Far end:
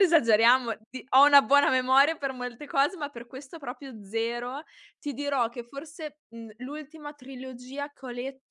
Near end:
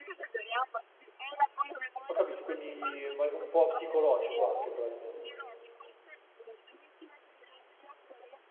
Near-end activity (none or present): present